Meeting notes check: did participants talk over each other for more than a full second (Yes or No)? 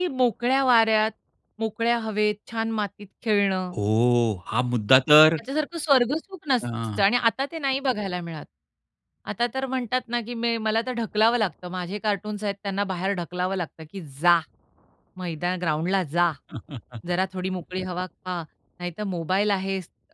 No